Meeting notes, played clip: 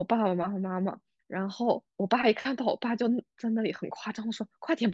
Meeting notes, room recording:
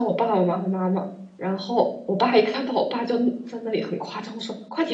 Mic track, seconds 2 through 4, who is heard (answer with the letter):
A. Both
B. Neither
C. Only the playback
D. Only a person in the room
C